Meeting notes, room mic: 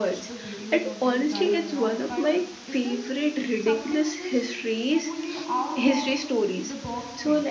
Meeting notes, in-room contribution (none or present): present